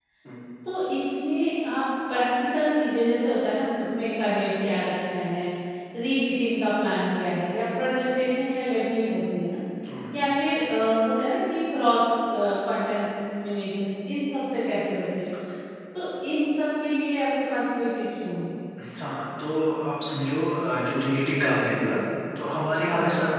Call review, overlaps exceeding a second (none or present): none